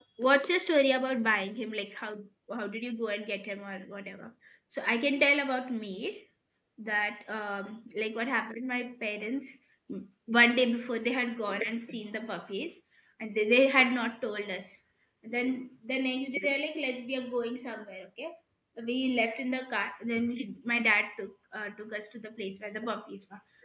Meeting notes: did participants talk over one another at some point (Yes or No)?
No